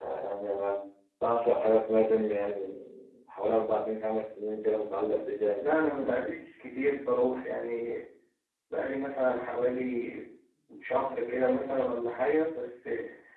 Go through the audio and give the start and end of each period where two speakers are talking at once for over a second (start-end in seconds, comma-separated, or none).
none